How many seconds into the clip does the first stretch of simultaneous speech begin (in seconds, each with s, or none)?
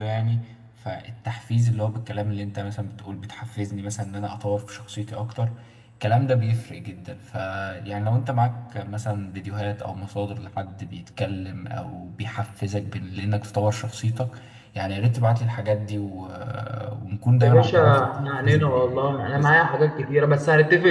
17.4 s